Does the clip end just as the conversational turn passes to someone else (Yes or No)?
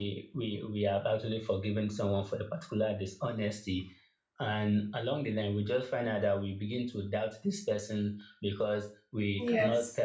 No